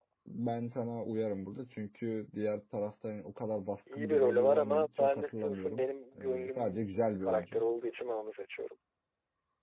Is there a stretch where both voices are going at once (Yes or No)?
Yes